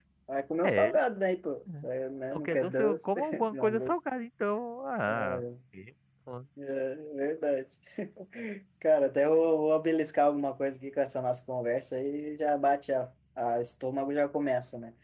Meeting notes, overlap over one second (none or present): present